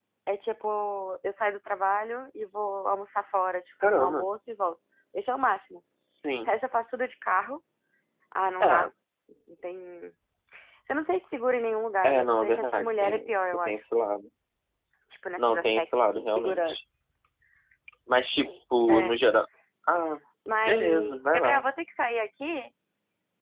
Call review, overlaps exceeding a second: present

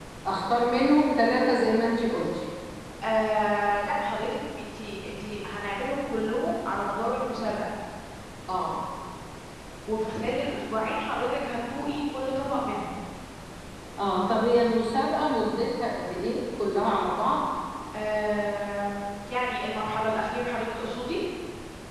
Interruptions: none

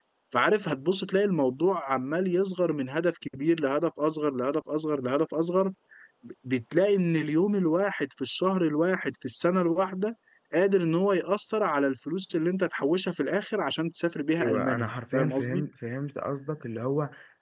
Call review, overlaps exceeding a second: present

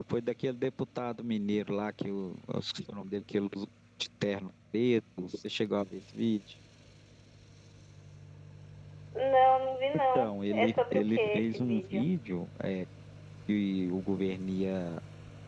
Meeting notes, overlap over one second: present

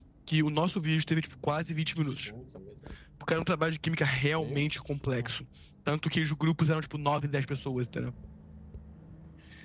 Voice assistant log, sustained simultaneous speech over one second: none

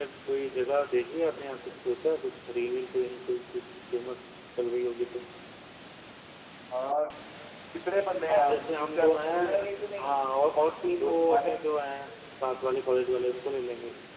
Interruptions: present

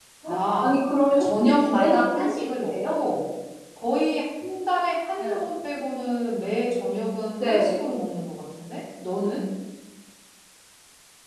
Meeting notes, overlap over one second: present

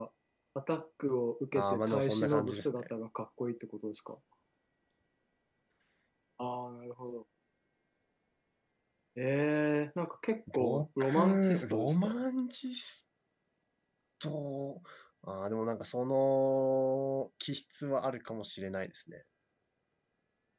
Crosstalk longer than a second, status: present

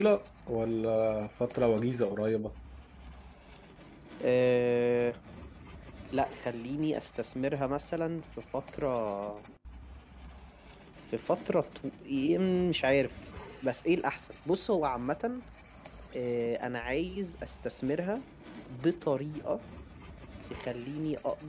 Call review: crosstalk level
none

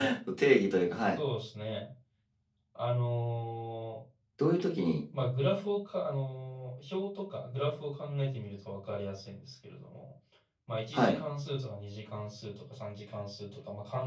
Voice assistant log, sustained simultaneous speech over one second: none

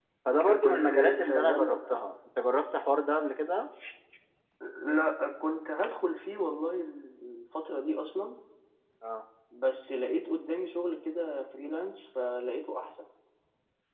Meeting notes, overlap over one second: present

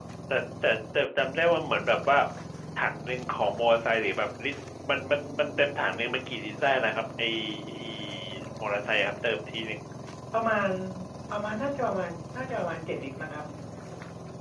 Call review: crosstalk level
none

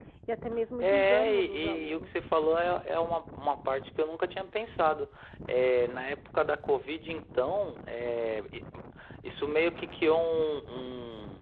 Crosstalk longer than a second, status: present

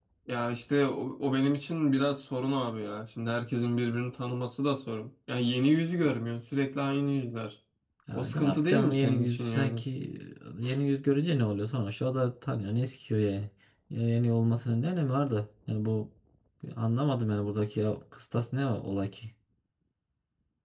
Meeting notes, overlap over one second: present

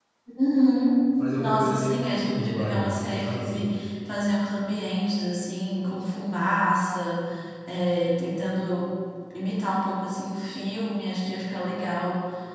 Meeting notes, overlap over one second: present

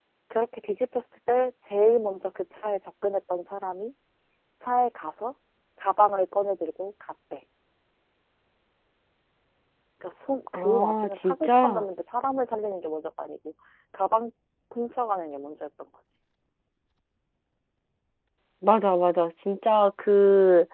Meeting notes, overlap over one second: present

